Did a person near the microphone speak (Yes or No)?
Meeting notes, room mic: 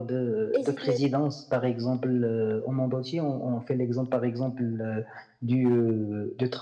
Yes